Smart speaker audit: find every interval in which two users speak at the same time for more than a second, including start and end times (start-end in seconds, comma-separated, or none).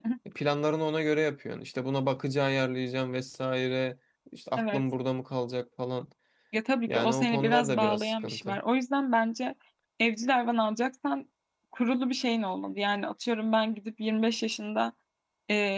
6.9-8.6